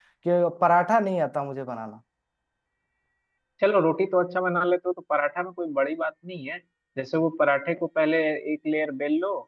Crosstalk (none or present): none